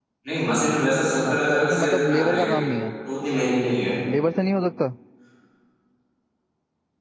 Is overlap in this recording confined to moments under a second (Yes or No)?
No